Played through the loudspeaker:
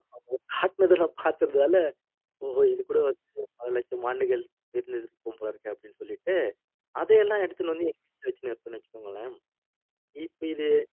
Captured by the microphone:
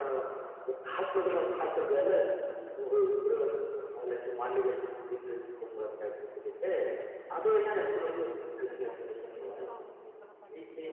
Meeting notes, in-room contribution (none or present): present